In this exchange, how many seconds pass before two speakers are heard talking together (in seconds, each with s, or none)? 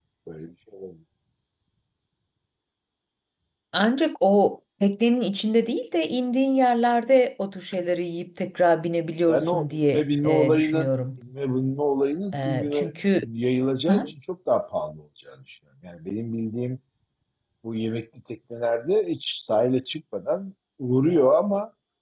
9.3 s